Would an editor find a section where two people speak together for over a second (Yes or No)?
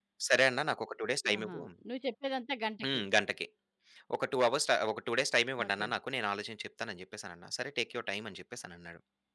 No